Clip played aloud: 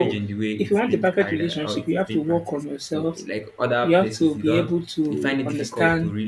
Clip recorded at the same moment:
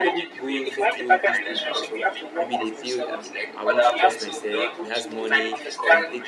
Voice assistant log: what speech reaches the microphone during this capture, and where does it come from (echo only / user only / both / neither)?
both